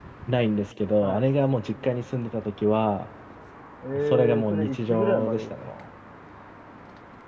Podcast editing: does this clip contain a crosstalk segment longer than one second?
Yes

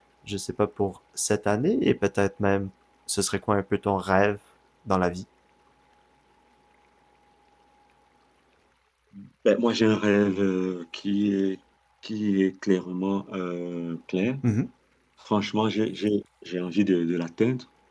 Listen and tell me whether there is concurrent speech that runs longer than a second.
No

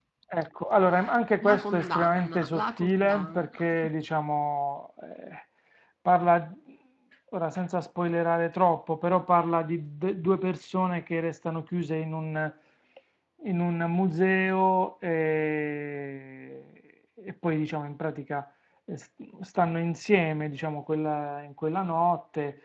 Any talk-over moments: Yes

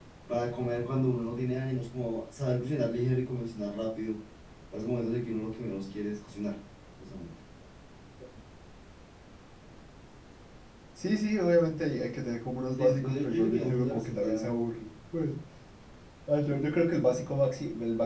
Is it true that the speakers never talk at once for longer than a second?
No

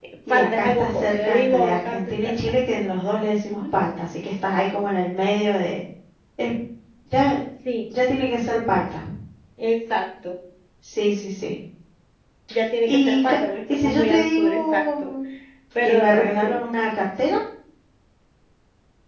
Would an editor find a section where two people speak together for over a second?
Yes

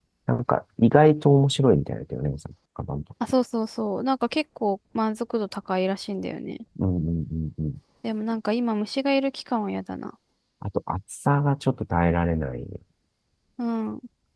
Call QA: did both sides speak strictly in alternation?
Yes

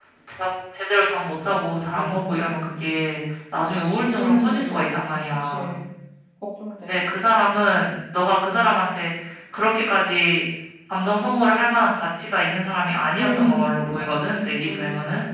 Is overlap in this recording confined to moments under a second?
No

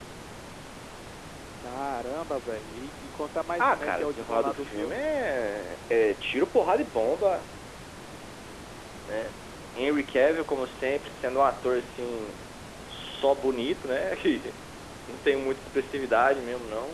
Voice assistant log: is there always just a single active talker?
No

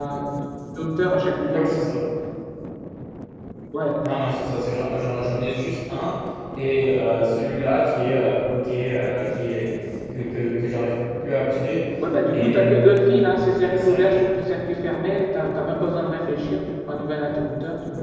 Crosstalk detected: Yes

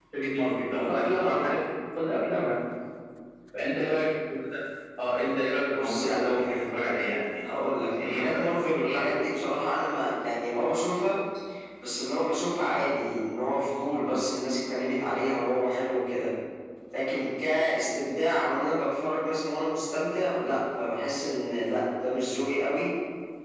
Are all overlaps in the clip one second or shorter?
No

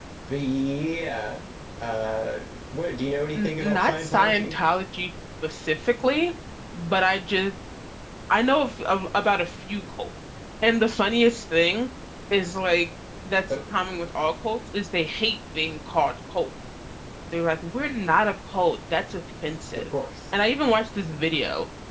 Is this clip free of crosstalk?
No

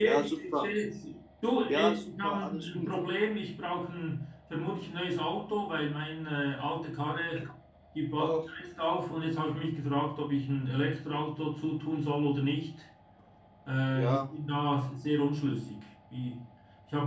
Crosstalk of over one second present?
Yes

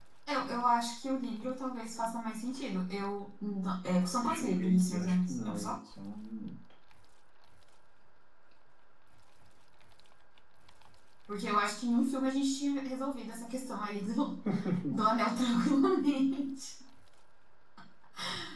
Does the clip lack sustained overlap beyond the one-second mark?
No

